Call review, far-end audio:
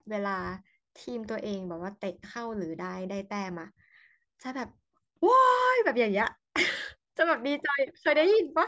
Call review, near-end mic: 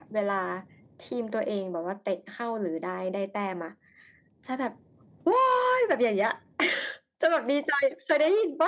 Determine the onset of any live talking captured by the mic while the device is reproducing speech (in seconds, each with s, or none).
none